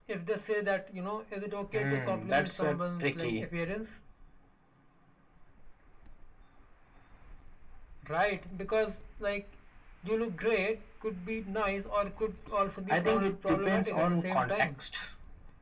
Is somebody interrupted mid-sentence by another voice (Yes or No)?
Yes